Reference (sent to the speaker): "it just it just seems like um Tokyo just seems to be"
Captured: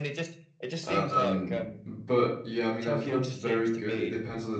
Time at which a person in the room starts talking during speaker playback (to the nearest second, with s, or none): 1 s